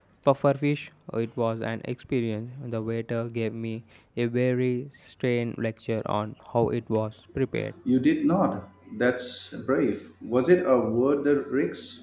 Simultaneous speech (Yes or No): No